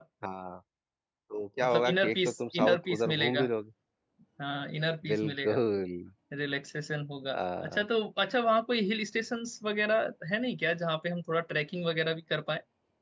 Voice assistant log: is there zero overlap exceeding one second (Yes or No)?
No